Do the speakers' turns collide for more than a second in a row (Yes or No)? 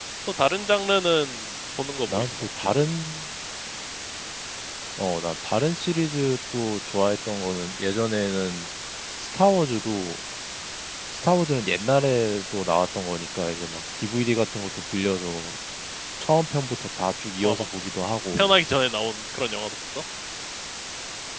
No